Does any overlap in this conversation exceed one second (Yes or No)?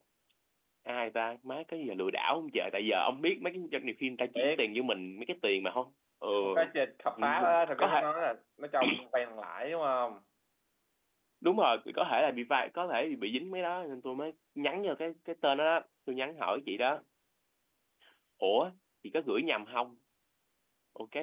No